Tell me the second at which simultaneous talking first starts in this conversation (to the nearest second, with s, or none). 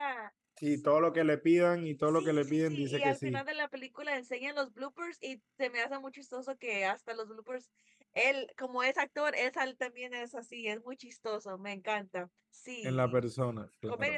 2 s